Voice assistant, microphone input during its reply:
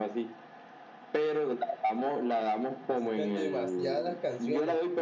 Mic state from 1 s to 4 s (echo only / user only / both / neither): both